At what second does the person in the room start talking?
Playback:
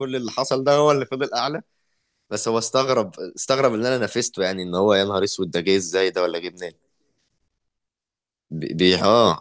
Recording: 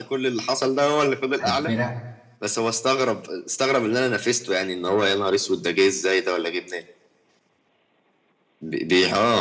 1.4 s

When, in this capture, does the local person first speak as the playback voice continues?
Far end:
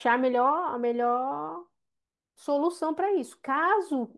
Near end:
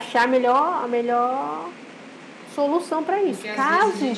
3.2 s

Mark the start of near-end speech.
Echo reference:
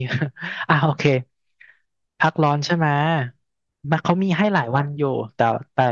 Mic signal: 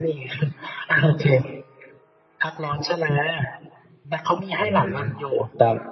4.6 s

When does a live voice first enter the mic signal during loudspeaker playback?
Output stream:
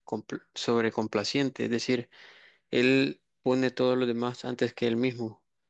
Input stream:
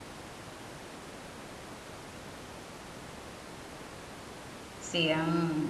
4.8 s

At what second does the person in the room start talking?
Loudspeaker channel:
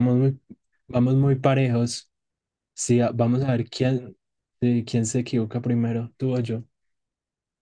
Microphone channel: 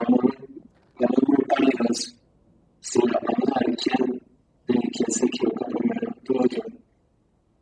none

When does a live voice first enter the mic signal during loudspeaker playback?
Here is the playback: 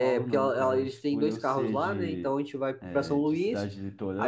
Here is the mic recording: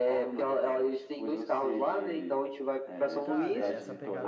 3.2 s

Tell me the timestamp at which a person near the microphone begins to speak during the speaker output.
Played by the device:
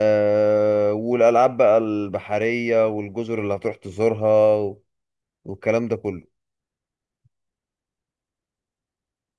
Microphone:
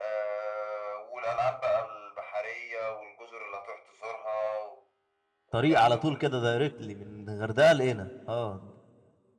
5.5 s

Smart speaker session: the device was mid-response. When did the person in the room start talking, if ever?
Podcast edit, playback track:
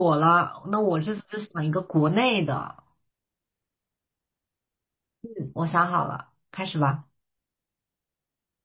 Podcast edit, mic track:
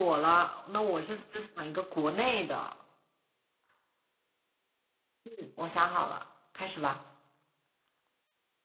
none

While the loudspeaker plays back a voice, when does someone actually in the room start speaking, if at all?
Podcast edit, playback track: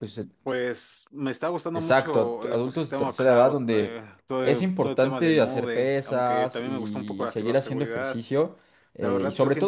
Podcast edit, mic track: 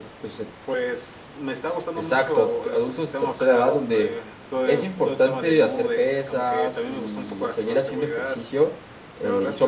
none

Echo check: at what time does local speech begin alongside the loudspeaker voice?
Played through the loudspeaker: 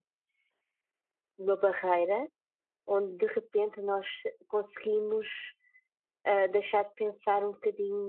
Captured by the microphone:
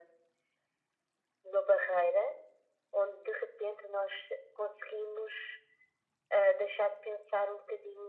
none

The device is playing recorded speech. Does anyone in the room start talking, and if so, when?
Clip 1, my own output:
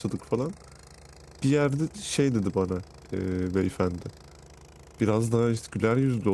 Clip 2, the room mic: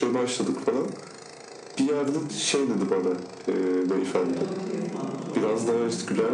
4.0 s

